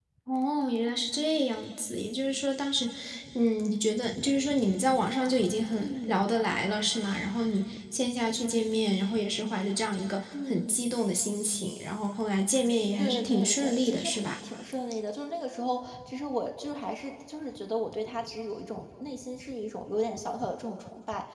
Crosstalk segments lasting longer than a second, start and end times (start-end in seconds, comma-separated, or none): 13.0-14.3